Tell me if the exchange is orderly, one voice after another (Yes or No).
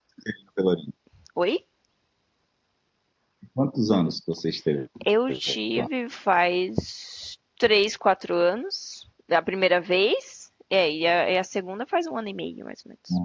Yes